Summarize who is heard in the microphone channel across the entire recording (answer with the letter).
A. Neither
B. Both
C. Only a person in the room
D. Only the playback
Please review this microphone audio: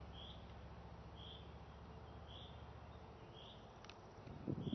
A